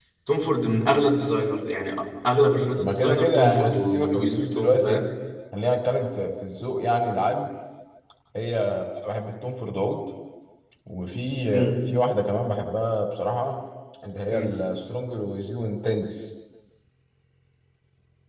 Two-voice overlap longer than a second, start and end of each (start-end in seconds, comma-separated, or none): 2.8-5.0